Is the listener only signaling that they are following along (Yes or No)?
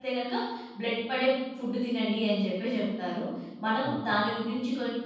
Yes